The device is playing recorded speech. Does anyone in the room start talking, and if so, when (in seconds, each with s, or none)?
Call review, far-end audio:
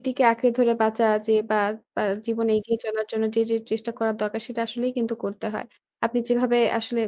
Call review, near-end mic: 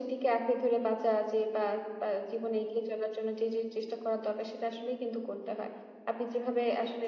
none